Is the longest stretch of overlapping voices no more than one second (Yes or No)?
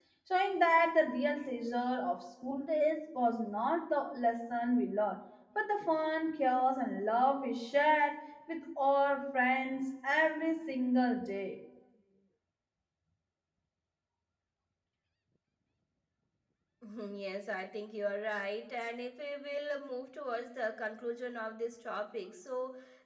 Yes